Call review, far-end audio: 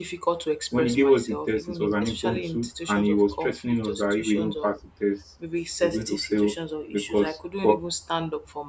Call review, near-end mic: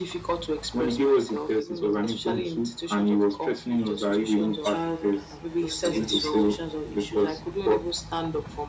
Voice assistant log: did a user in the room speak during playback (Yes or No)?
Yes